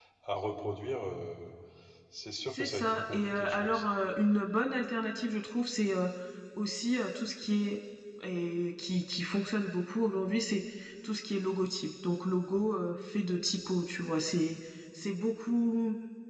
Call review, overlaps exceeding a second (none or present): present